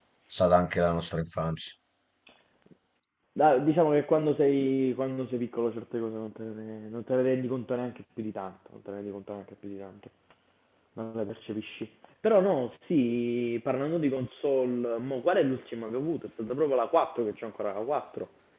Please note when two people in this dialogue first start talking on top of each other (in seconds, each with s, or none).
none